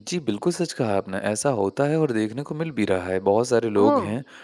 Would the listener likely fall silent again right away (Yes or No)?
Yes